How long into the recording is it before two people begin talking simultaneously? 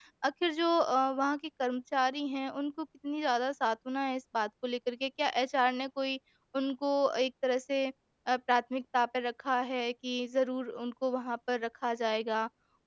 none

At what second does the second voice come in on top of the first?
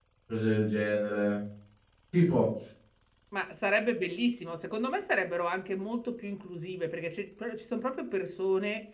none

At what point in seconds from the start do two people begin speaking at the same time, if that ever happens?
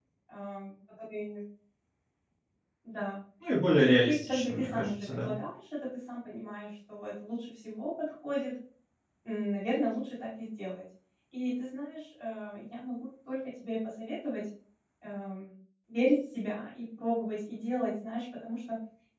3.8 s

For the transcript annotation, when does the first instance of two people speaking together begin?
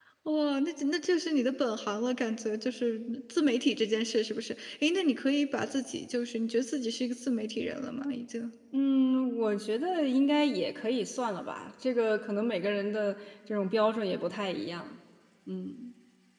none

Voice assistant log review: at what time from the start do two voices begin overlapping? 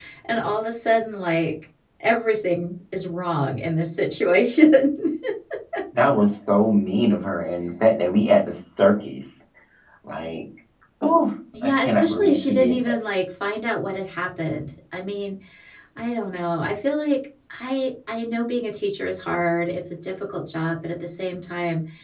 11.6 s

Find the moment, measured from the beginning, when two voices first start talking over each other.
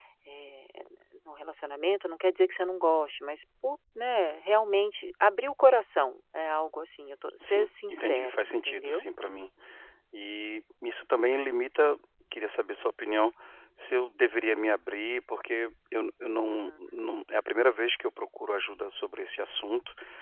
7.4 s

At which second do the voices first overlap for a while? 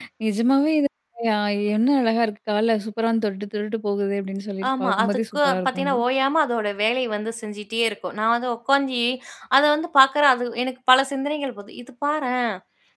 4.6 s

